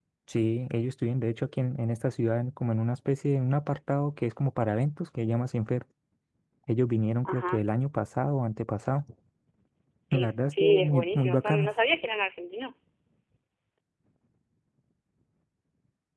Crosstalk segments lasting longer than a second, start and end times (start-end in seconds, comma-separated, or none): 10.1-11.7